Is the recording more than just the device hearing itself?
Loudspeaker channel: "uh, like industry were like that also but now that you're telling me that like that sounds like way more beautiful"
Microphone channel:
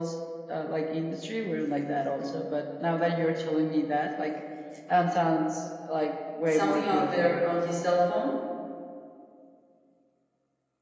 Yes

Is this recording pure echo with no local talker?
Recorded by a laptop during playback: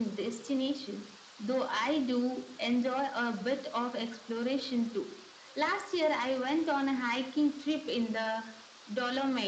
Yes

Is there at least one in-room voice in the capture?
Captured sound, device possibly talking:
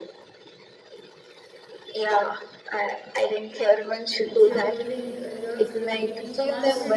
Yes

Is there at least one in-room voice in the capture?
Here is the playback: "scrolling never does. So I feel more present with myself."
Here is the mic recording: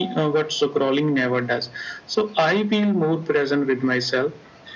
No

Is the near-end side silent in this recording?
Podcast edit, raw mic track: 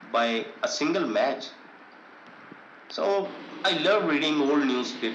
Yes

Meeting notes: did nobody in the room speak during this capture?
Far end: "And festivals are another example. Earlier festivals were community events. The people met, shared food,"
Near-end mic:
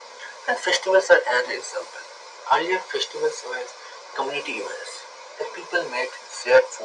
Yes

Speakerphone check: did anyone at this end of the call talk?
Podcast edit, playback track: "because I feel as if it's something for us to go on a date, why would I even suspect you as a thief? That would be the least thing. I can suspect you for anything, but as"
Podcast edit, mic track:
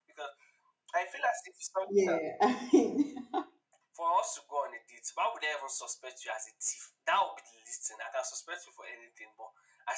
Yes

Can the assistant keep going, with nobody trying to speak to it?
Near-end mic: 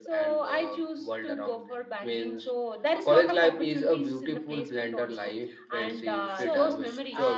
No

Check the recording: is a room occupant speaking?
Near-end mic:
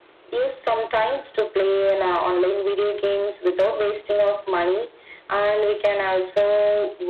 No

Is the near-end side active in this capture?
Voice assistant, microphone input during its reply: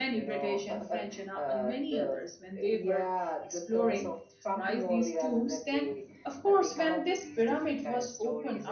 Yes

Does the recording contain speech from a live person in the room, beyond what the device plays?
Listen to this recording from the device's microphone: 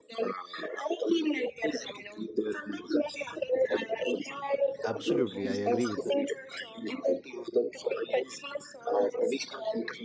Yes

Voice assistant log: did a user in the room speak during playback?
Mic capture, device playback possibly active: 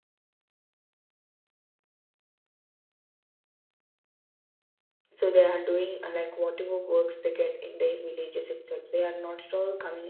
Yes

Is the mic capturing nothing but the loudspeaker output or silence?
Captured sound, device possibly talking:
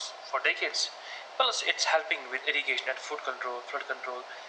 Yes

